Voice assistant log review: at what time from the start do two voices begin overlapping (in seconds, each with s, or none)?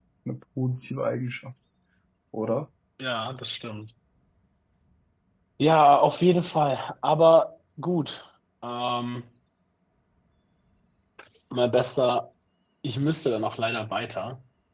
none